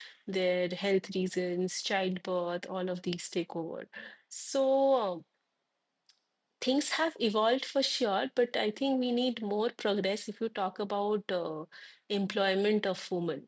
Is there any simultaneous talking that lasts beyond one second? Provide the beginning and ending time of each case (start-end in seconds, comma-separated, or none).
none